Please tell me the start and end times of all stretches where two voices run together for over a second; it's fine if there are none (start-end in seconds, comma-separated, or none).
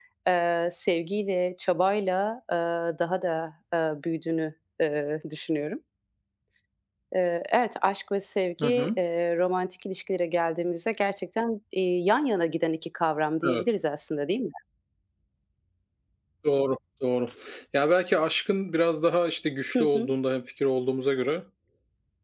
none